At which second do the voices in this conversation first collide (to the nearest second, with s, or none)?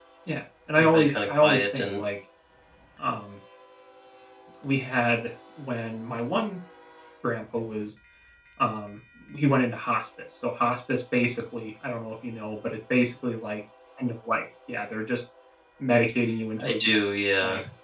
1 s